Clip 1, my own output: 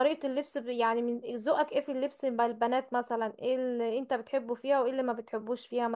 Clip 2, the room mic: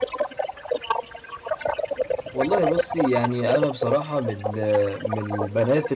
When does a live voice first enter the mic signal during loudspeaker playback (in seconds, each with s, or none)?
2.3 s